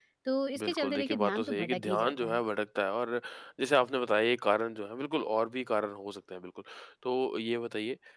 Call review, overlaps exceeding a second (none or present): present